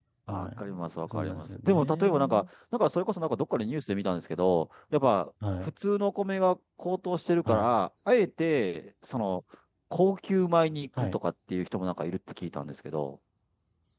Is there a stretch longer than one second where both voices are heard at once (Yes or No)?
Yes